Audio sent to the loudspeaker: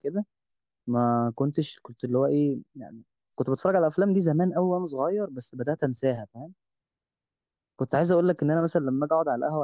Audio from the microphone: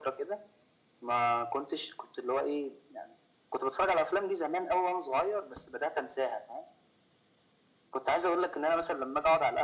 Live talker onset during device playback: none

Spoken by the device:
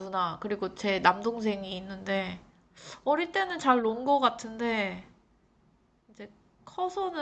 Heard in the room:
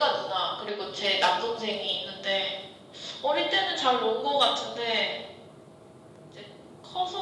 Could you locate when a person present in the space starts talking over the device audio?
none

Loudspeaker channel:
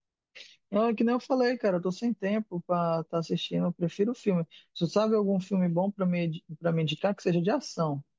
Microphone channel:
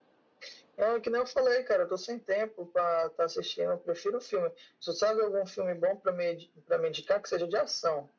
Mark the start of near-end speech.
none

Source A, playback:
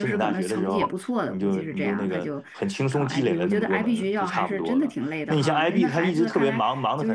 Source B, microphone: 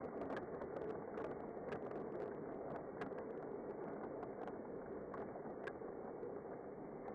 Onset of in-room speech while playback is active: none

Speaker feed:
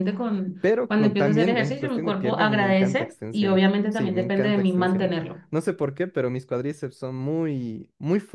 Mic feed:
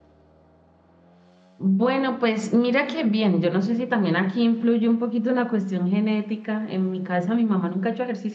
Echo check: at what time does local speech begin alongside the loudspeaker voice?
1.6 s

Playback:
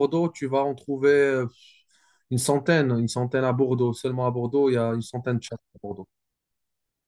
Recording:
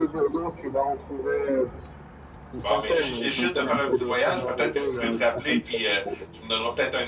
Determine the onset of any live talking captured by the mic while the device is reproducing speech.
2.6 s

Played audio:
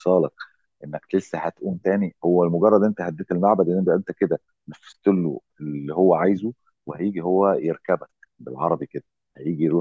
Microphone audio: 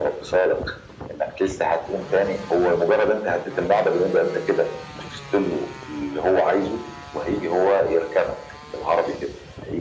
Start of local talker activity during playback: none

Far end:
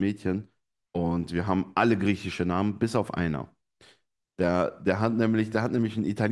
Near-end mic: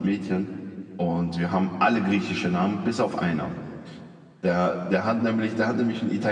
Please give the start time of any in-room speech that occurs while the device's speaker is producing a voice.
none

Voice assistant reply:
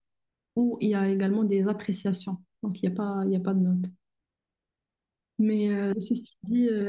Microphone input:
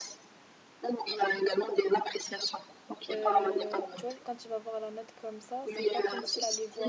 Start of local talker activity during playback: 3.1 s

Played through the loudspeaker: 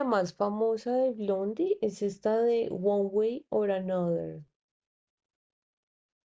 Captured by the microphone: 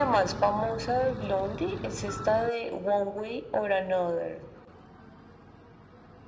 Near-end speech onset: none

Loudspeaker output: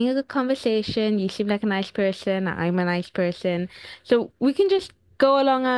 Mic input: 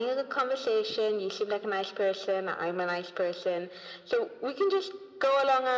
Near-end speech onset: none

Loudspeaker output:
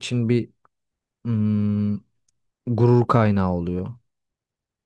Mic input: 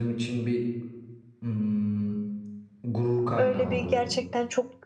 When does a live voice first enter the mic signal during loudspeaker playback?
3.3 s

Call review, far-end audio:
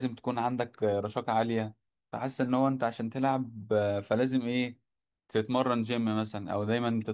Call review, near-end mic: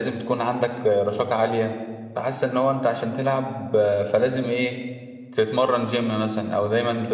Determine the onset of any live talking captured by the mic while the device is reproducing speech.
none

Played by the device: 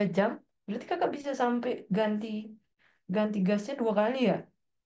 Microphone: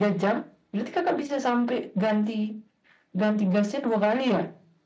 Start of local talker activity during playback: none

